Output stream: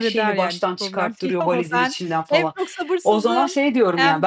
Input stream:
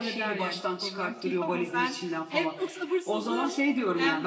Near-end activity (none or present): none